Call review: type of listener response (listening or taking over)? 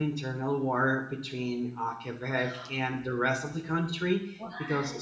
listening